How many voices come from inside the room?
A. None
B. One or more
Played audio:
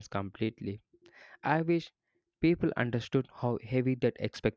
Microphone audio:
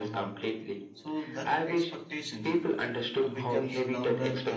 B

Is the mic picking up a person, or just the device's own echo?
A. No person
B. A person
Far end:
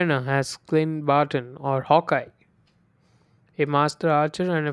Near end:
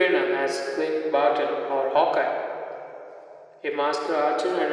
A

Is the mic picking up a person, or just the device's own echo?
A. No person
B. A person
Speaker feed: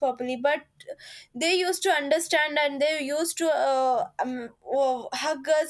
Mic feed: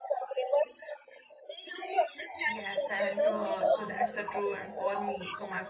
B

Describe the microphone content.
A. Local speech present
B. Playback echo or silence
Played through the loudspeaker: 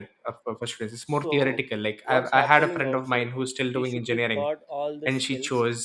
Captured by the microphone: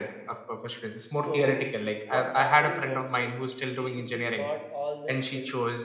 B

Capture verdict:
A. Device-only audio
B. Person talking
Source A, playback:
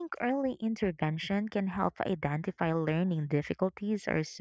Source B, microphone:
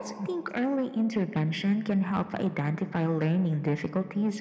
A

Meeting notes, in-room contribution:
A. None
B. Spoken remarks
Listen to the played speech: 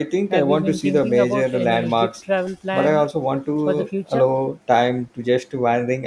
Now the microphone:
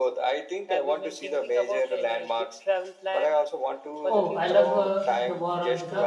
B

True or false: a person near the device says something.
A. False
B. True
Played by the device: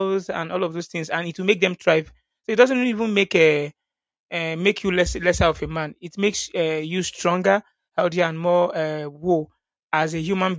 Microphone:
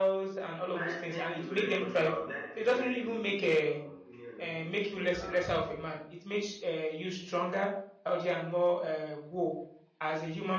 B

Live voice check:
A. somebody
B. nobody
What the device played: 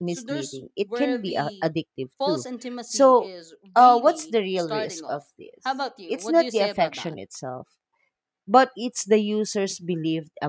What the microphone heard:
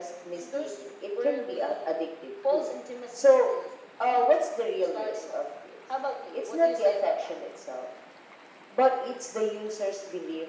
B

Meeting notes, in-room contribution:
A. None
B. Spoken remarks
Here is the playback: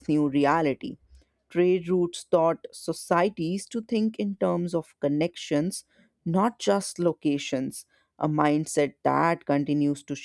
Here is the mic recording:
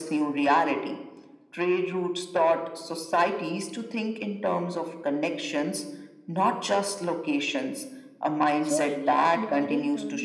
B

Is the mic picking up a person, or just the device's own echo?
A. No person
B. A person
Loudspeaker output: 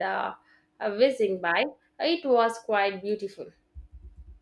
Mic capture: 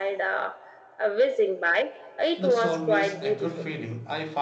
B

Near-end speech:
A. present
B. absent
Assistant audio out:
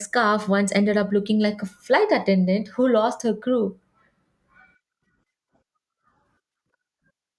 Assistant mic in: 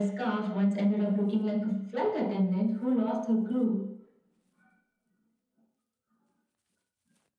B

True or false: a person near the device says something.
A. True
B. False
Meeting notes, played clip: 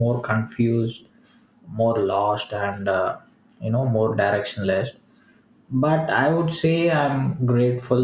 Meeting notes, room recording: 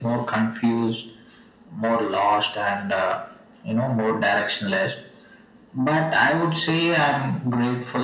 B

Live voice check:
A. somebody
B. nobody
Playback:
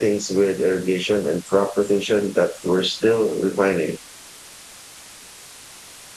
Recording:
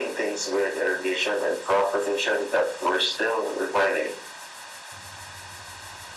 B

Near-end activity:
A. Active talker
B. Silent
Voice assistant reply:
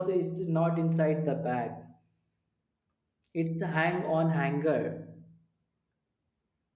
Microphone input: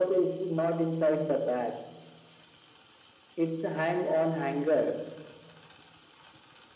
B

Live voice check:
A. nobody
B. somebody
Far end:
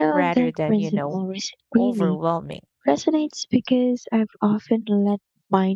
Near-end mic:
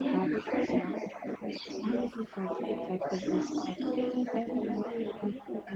B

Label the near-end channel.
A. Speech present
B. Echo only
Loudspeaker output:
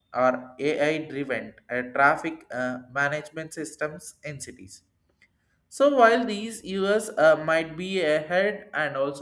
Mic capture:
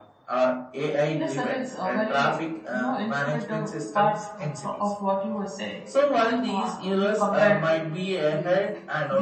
A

